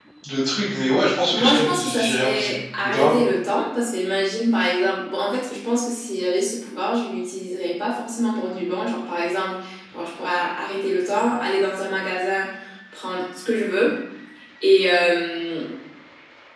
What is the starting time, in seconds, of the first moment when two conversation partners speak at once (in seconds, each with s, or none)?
1.3 s